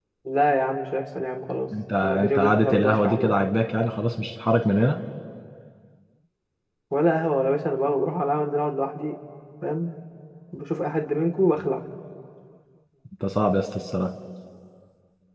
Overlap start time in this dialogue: 2.0 s

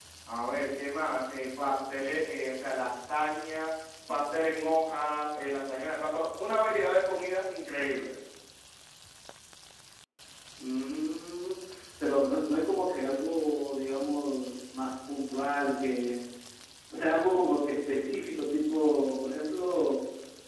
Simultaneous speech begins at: none

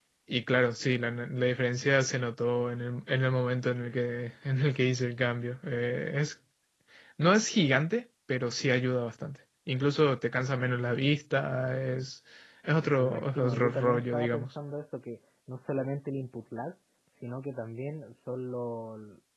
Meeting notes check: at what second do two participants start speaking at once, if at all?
13.0 s

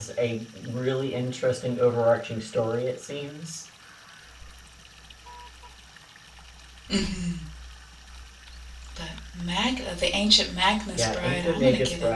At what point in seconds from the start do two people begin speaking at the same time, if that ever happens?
10.9 s

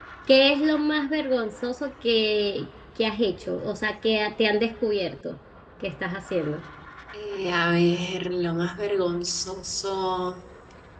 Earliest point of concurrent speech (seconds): none

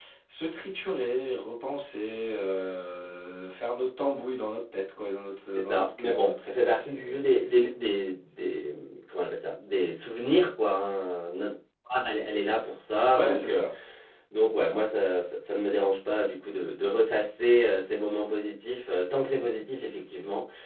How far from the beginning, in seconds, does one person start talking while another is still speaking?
5.6 s

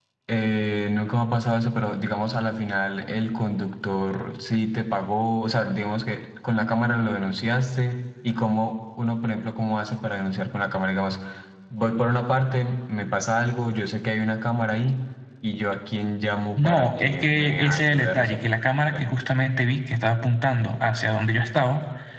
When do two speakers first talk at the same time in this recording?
16.6 s

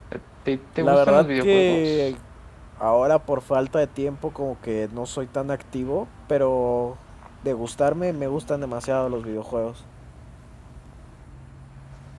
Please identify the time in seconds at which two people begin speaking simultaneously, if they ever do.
0.8 s

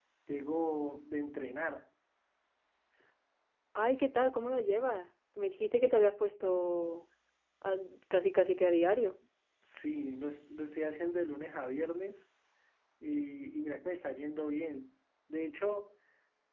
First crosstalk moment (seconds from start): none

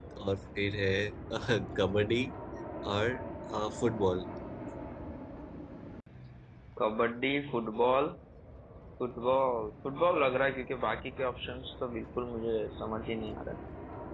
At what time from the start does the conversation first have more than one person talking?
none

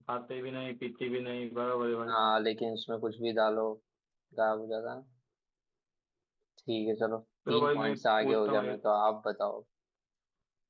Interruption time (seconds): 7.5 s

